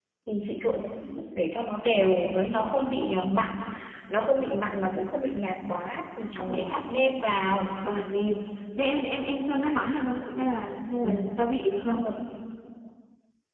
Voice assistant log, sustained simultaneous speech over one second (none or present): none